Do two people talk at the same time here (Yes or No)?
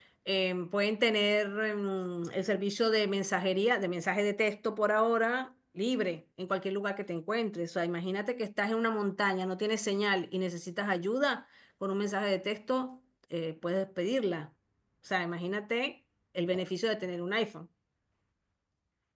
No